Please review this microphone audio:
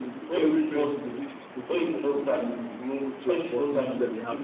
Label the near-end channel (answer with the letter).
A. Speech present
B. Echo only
A